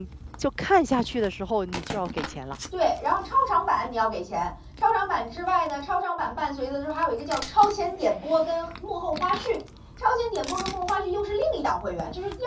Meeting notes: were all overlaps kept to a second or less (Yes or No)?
Yes